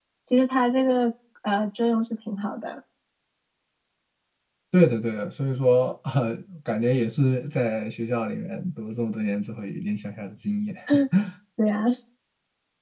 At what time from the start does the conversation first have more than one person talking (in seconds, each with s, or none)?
none